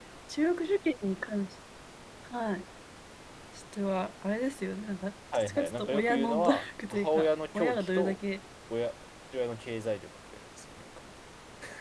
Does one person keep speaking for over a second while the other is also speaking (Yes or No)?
Yes